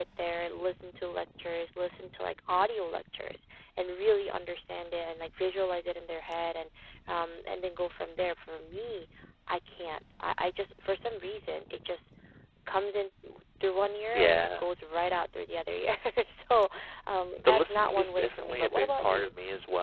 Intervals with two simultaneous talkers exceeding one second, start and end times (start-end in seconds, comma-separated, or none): 17.4-19.3